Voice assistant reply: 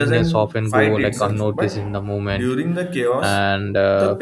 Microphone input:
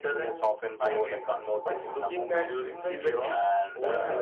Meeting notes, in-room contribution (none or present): present